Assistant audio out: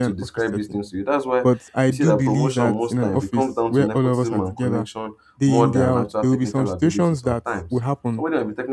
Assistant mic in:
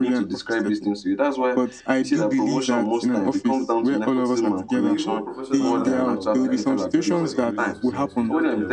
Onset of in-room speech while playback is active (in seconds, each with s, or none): 4.7 s